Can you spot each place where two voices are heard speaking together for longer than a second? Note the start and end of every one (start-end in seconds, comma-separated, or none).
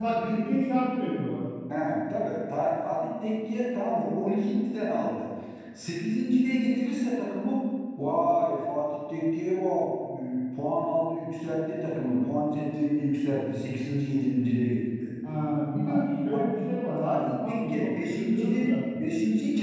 17.0-18.7